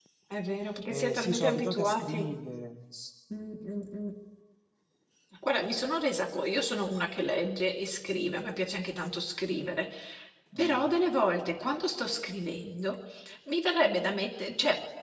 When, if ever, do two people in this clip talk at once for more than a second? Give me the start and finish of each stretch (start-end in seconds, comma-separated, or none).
0.9-2.4